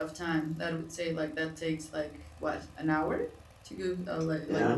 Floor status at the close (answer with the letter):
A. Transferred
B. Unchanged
A